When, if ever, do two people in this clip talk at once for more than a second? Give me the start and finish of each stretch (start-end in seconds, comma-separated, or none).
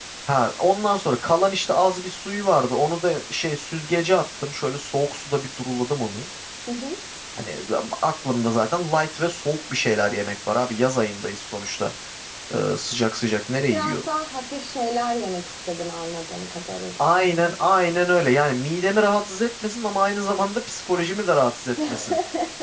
none